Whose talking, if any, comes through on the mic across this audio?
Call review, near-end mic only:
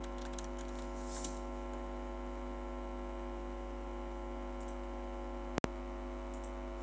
neither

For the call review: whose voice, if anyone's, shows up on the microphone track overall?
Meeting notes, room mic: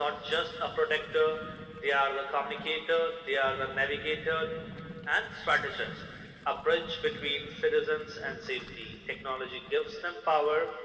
echo only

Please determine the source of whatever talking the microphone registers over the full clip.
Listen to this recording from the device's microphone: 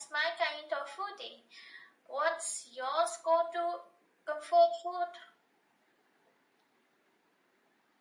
echo only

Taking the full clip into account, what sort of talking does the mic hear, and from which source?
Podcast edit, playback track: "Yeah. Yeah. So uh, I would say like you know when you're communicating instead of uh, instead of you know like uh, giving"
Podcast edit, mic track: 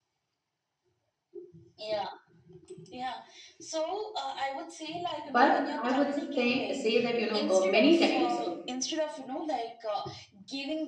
both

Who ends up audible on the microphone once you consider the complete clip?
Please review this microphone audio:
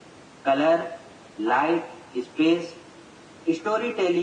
echo only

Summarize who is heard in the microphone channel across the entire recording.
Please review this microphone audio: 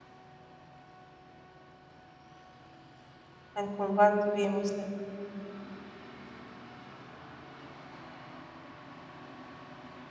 user only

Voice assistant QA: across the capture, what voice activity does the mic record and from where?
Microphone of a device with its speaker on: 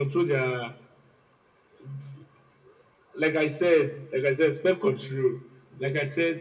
echo only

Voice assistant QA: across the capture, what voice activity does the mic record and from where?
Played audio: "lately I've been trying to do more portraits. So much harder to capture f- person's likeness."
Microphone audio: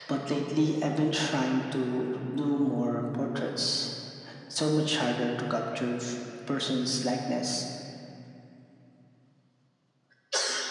echo only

